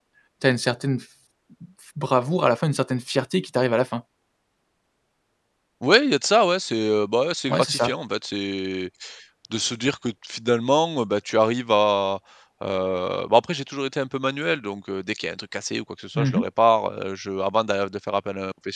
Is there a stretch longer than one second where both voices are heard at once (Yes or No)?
No